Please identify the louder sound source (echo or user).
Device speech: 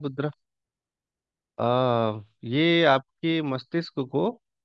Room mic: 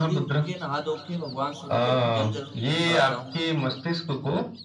echo